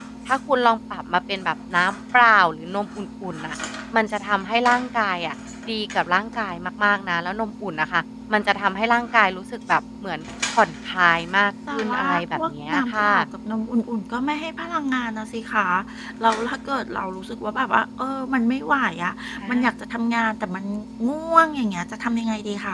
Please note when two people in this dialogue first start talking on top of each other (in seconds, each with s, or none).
11.7 s